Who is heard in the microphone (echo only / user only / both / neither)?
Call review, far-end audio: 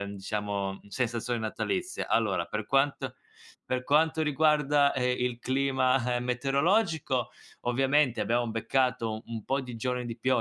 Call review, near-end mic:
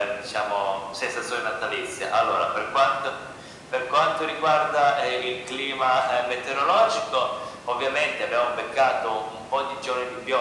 echo only